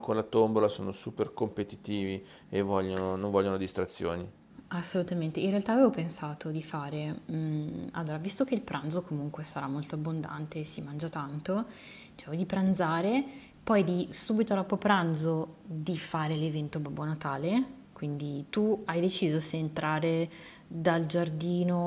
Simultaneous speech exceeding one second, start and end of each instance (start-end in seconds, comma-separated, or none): none